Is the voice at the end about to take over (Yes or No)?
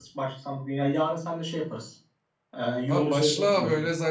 Yes